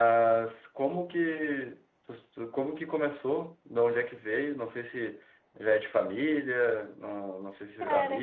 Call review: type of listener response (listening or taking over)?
listening